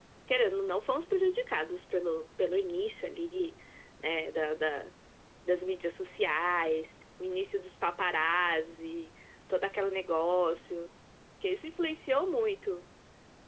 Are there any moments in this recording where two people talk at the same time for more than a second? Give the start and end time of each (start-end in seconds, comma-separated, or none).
none